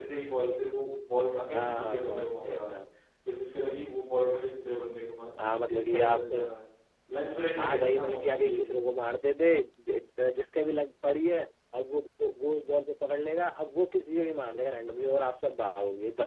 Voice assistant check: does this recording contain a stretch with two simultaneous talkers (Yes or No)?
Yes